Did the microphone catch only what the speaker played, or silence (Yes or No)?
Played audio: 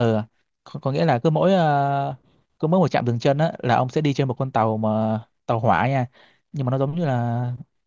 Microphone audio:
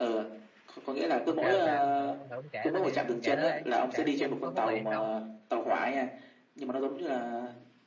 No